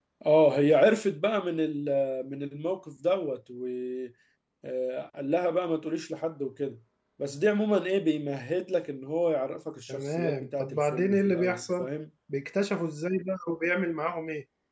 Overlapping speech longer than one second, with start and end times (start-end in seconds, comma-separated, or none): 9.9-11.9